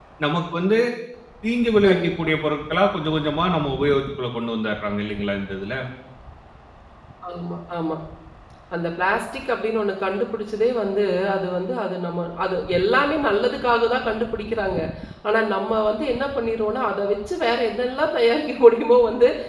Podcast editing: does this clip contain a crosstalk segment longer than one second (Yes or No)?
No